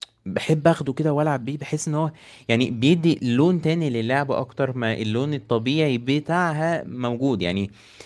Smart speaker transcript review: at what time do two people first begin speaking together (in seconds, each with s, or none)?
none